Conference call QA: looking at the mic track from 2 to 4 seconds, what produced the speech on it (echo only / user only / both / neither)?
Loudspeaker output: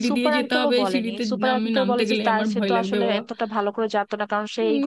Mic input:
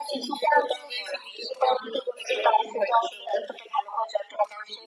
echo only